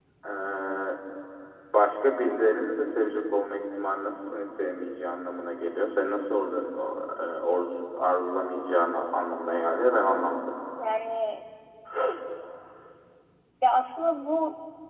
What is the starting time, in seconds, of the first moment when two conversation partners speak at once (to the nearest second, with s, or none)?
none